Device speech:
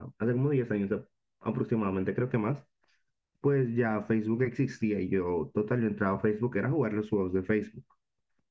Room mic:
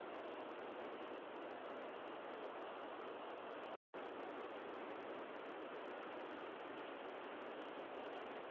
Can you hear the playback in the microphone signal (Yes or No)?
No